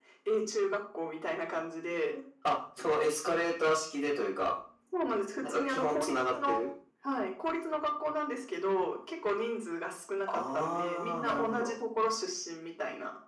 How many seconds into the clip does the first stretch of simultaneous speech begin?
5 s

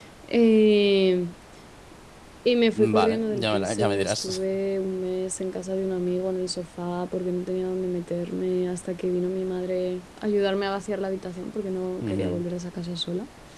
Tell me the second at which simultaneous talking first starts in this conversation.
3 s

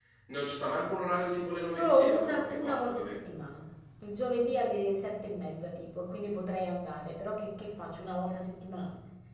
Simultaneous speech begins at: 2 s

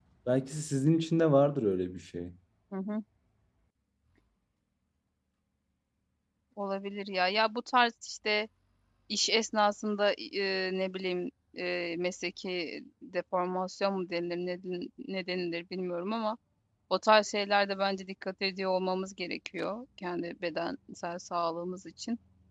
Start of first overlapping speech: none

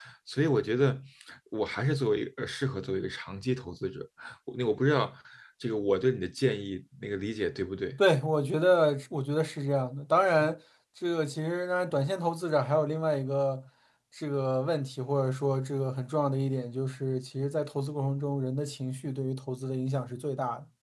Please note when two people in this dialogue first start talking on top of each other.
none

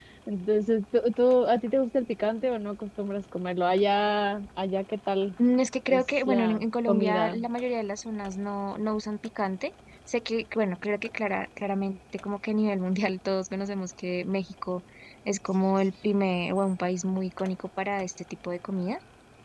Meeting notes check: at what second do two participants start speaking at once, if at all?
6 s

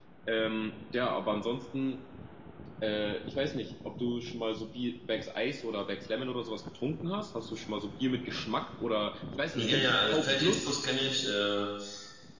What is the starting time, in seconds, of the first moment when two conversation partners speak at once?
9 s

